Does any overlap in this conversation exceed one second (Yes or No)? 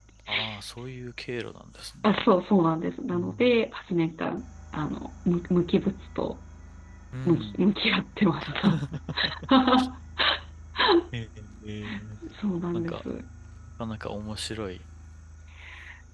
No